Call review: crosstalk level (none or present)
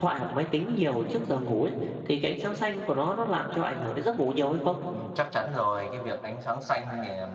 none